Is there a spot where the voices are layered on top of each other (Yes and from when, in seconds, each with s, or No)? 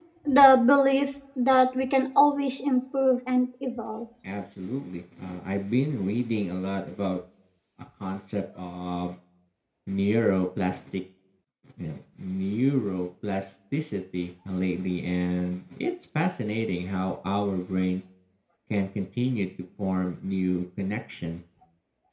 No